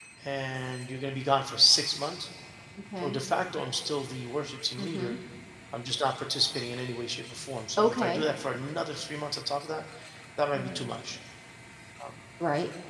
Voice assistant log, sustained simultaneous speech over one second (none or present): none